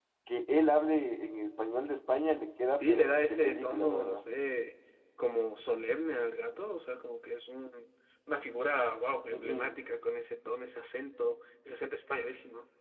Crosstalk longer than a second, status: present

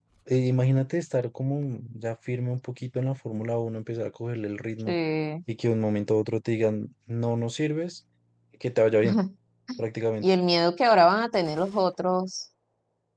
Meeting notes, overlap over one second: none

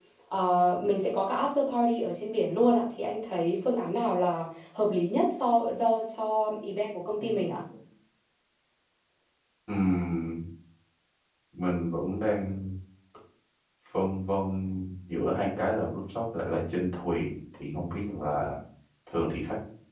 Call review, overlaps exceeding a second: none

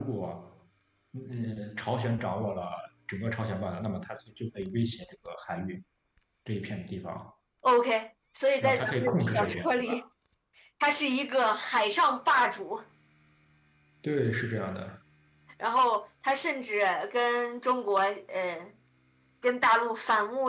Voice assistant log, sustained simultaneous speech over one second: present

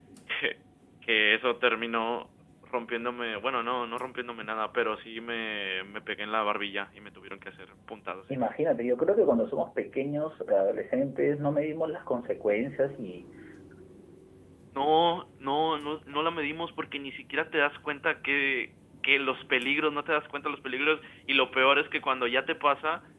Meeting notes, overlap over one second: none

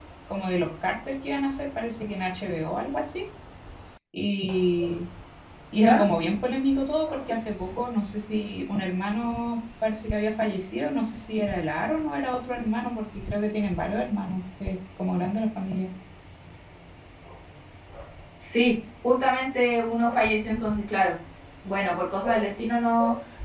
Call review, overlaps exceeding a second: none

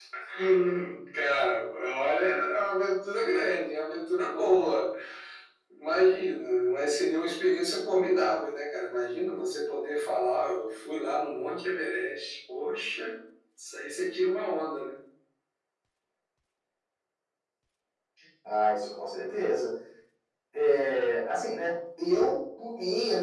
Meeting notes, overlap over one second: none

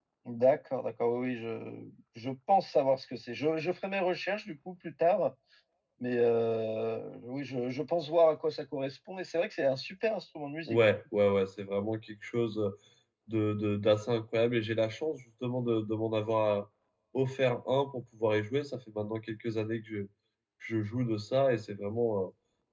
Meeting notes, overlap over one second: none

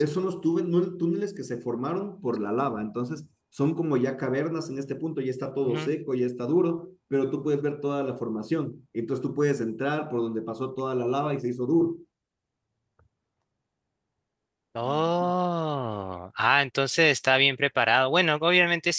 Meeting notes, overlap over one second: none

